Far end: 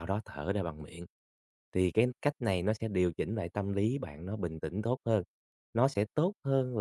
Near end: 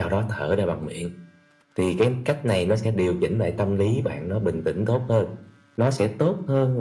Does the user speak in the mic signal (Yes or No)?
No